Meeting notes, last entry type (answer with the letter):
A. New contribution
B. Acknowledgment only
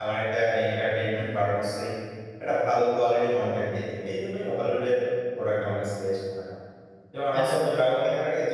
B